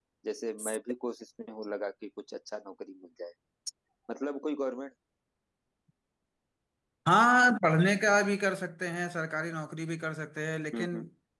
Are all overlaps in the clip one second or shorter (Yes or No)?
Yes